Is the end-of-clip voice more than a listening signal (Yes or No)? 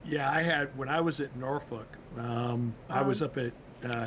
No